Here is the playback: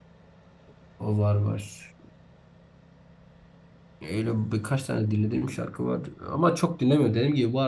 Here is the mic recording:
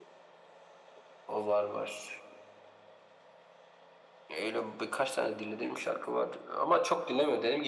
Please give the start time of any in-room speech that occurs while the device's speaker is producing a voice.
none

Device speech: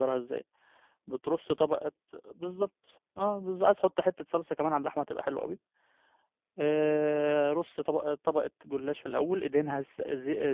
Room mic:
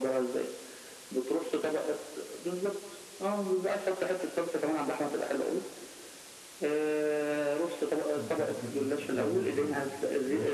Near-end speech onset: 8.2 s

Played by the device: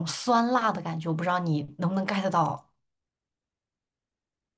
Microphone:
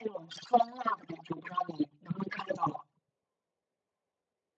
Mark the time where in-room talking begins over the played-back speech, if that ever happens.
none

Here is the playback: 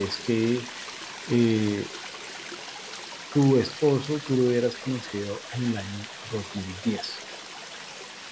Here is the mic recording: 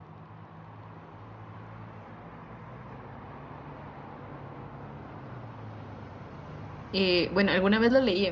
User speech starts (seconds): 6.9 s

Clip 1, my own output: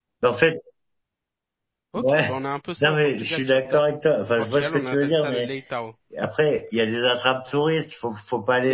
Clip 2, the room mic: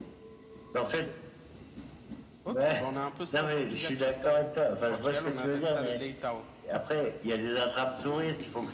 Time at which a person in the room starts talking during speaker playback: none

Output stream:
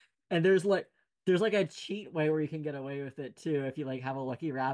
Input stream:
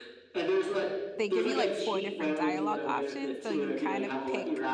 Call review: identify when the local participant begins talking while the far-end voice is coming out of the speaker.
1.2 s

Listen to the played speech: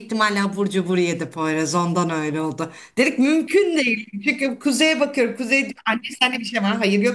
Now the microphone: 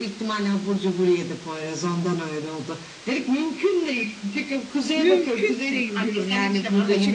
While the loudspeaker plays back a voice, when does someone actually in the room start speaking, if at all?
5.0 s

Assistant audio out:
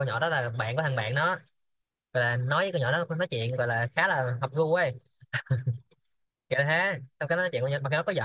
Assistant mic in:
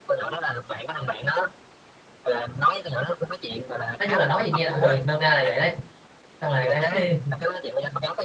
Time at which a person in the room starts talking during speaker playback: 4.0 s

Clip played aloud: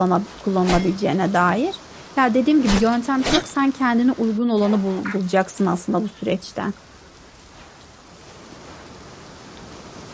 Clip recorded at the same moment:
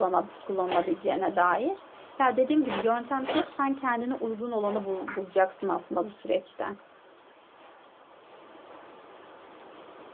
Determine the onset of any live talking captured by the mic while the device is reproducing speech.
none

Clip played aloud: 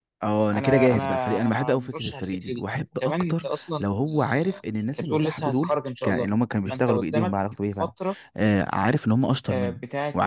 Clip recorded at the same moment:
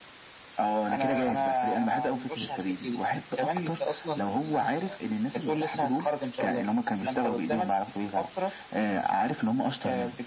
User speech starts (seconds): none

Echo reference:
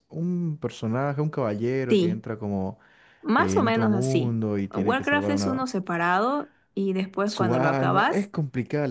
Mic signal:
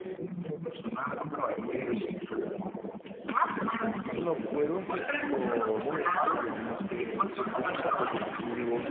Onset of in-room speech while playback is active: 4.0 s

